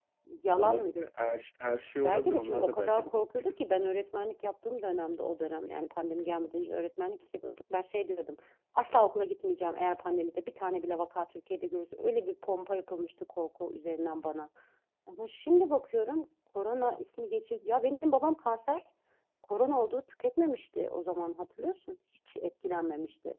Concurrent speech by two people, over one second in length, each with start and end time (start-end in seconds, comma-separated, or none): 2.0-3.5